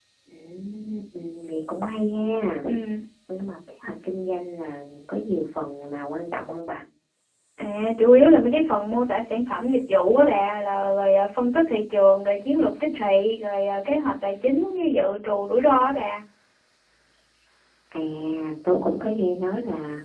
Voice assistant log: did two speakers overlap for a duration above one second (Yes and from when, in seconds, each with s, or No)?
No